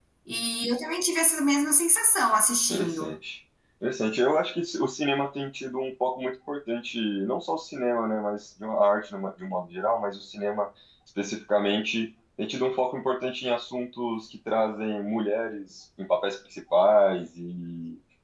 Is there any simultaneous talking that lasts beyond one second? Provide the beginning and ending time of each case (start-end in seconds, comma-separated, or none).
none